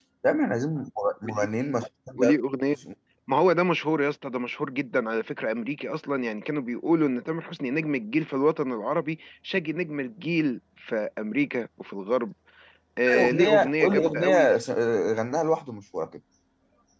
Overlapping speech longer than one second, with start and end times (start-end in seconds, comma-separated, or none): 13.2-14.5